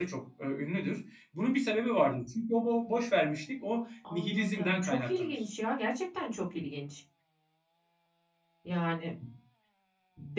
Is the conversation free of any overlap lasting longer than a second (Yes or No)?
No